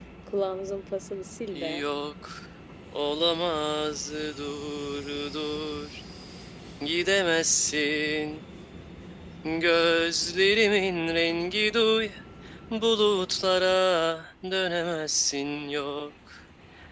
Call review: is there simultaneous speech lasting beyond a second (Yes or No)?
No